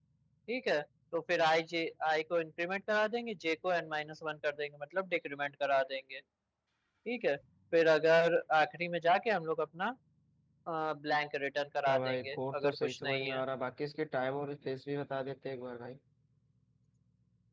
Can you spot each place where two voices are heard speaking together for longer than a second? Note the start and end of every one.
11.9-13.4

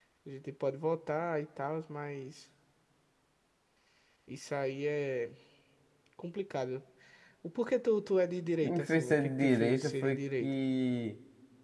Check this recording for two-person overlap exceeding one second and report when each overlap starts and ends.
8.6-10.5

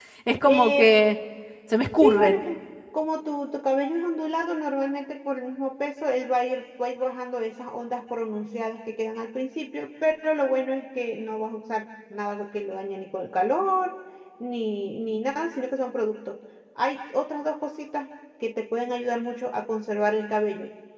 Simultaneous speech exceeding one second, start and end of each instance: none

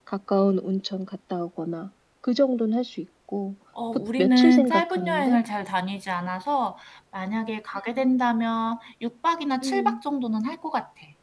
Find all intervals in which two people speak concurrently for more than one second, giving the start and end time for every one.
3.9-5.4

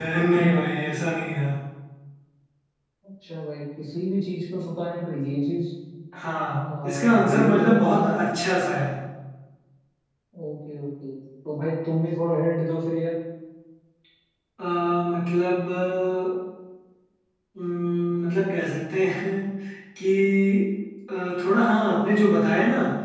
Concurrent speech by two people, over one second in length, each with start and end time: 6.8-8.1

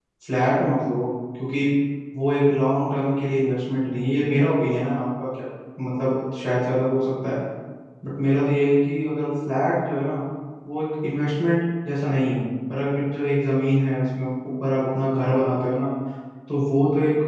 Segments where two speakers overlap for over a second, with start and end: none

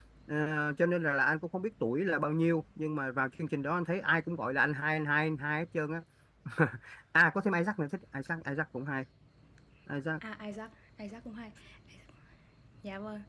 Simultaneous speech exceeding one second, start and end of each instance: none

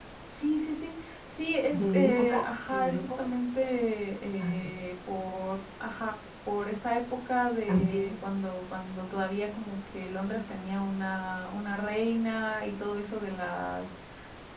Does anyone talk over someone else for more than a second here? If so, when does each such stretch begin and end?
1.7-3.3

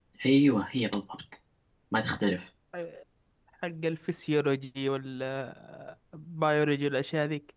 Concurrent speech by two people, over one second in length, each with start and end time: none

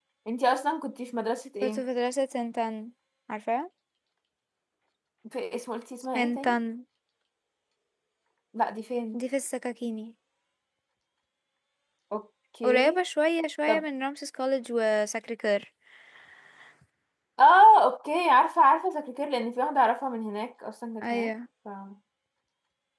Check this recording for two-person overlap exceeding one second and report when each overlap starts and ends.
none

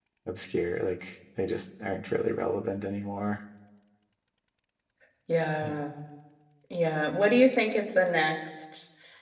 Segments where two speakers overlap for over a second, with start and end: none

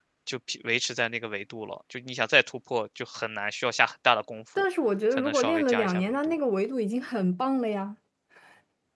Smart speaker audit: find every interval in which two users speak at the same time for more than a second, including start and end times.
5.1-6.3

